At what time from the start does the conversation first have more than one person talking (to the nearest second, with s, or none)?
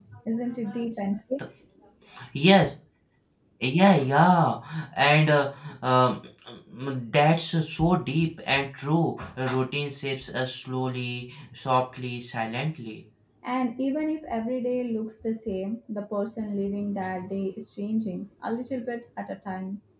none